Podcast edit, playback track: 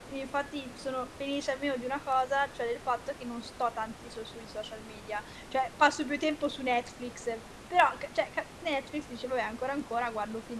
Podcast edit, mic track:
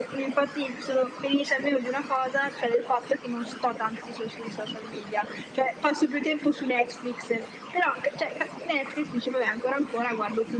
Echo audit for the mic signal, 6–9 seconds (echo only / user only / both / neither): echo only